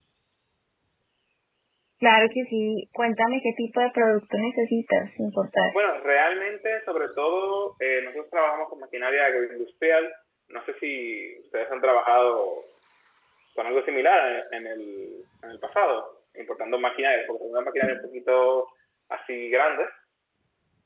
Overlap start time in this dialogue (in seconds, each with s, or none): none